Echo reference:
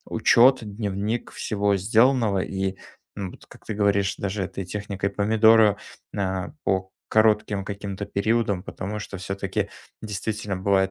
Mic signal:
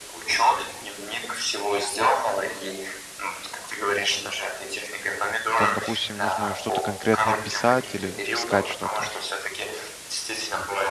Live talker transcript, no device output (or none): там, допустим, нужно что-то конкретно писать или вот искать что-то.